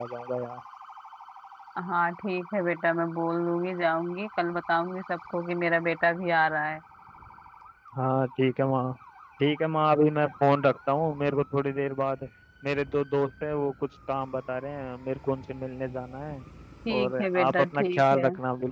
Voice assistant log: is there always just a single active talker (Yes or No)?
No